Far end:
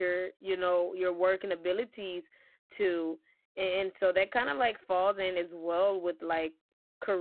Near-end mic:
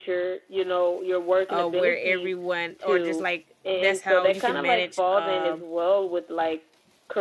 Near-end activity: present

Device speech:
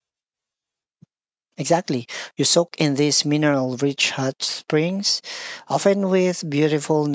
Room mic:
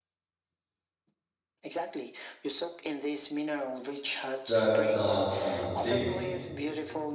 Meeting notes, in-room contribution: present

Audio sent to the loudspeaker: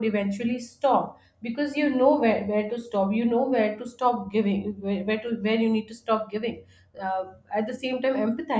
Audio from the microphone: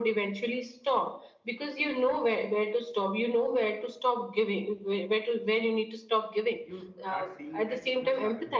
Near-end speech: present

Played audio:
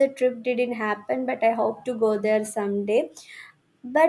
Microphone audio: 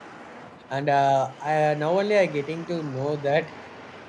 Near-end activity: present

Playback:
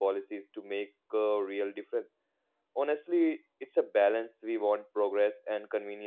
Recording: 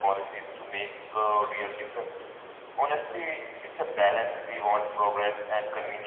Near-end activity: none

